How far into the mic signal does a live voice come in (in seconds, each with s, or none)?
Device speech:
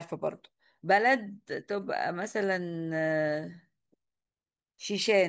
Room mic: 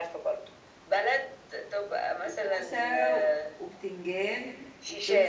2.2 s